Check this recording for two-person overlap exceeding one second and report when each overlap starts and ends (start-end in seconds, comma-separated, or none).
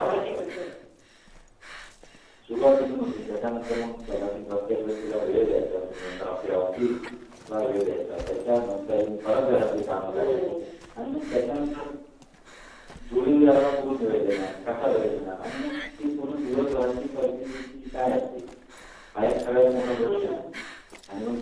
none